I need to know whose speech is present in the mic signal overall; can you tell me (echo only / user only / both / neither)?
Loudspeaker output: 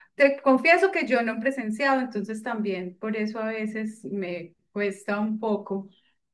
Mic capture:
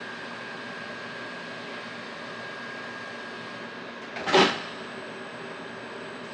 neither